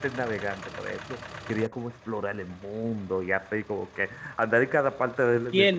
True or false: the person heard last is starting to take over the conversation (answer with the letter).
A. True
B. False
A